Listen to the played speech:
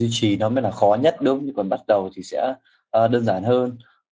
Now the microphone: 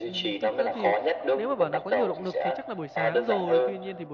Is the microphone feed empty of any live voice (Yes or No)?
No